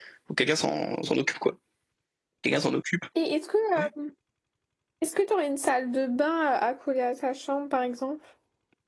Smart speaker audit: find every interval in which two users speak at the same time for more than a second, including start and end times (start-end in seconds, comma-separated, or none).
none